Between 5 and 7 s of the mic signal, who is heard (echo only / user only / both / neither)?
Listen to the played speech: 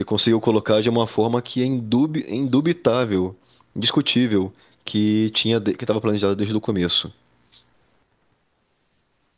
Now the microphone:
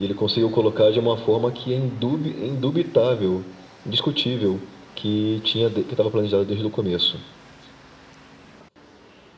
echo only